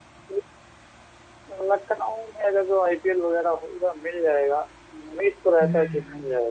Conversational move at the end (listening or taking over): listening